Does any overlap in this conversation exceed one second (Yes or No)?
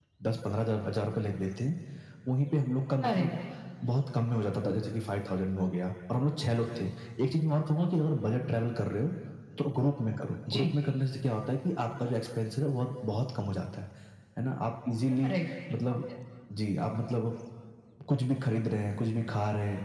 No